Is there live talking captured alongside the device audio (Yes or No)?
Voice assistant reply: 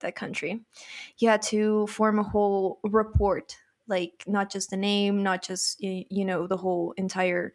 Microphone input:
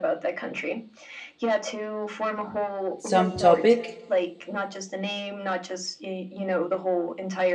Yes